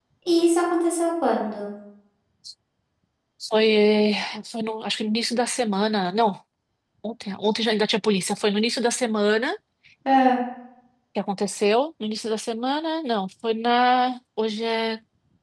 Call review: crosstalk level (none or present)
none